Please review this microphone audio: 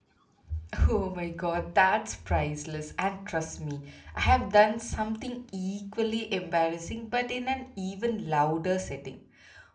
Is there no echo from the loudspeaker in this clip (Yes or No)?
Yes